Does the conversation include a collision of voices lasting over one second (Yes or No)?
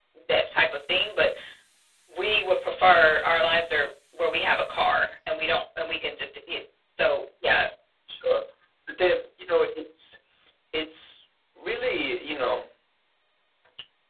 No